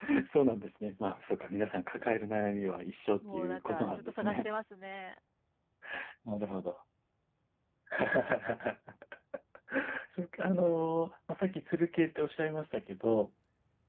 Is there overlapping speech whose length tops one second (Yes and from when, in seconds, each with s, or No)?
Yes, from 3.2 s